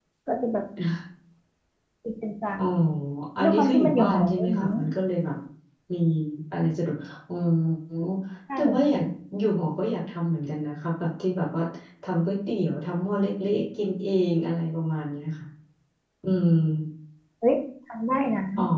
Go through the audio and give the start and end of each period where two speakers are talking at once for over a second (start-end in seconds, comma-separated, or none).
3.4-4.7